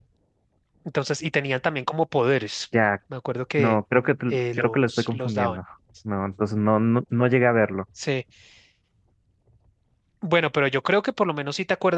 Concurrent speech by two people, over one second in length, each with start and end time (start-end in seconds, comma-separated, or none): 4.3-5.6